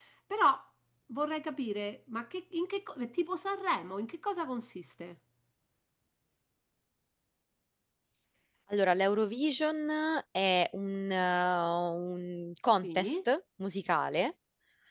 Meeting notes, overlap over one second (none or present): none